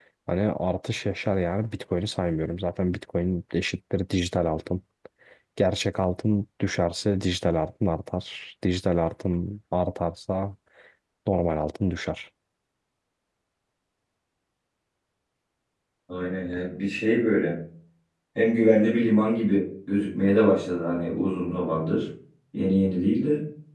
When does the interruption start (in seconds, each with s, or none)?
none